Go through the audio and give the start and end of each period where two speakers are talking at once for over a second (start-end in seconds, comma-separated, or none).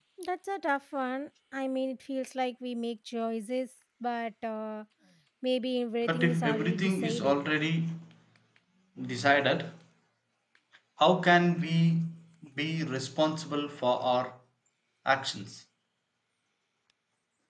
6.0-7.4